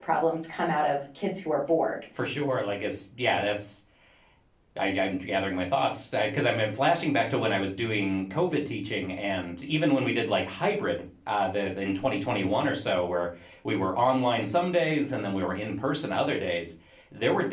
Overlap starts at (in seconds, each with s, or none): none